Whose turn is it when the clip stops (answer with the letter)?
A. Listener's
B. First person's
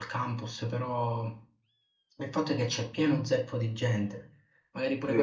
A